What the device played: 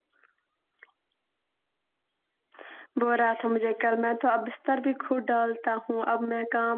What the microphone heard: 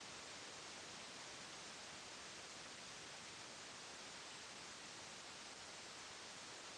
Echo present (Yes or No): No